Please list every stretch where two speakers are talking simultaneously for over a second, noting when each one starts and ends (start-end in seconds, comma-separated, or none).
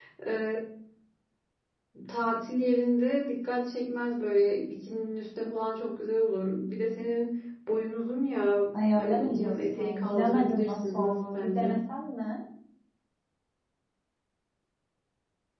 8.7-11.8